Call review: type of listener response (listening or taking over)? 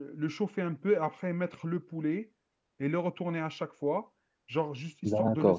taking over